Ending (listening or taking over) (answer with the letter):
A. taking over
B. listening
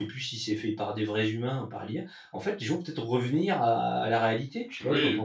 A